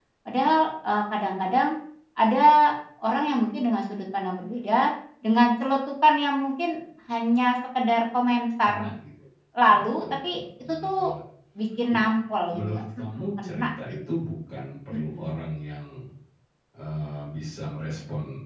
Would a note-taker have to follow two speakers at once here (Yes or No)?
Yes